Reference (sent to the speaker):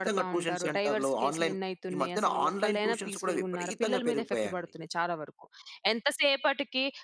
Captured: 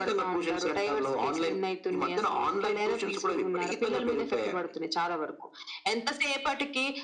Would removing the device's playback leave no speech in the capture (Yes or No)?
Yes